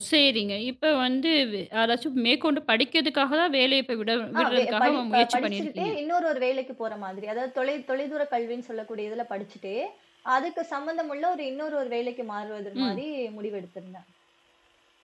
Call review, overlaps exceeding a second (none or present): present